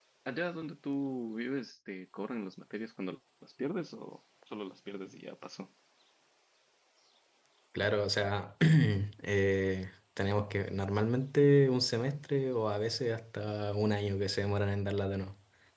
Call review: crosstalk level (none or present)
none